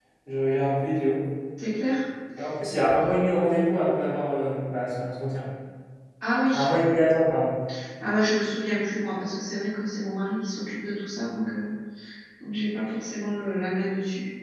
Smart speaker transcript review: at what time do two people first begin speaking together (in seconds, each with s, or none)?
none